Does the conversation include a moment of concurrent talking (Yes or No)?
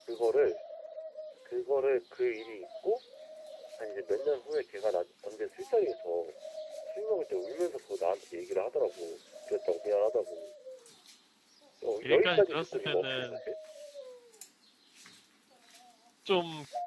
Yes